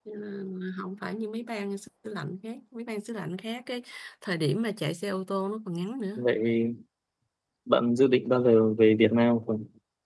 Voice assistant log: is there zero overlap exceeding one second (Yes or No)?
Yes